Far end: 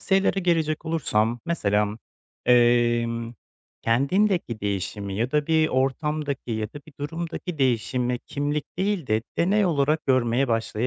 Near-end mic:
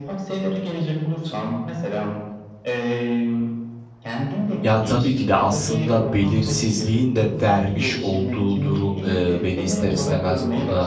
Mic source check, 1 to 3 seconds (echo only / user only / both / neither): echo only